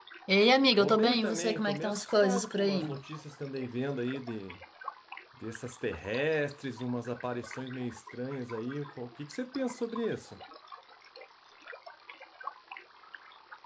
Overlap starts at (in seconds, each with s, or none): 0.8 s